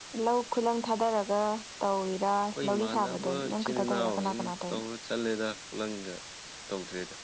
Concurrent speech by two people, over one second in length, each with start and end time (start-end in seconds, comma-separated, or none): 2.6-4.9